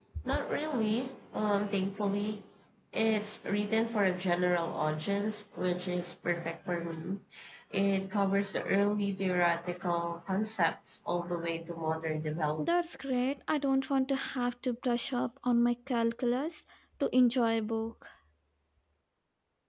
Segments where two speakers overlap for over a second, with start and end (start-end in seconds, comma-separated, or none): none